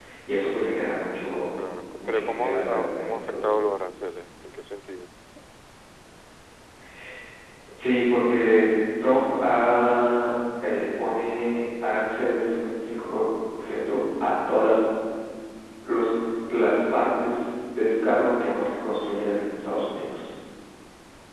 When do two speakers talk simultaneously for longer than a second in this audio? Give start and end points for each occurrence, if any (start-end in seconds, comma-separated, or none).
2.0-3.5